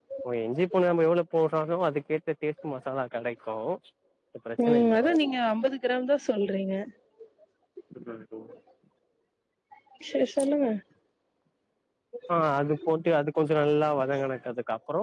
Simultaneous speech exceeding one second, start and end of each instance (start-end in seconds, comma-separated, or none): none